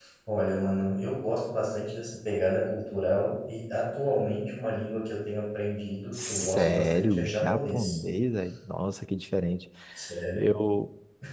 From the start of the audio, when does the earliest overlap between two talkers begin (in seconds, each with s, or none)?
6.1 s